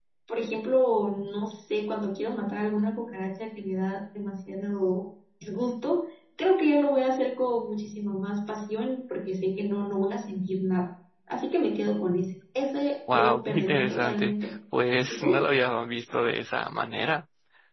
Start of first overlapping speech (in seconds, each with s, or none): 13.1 s